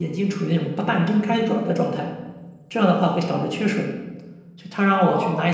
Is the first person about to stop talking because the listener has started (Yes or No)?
No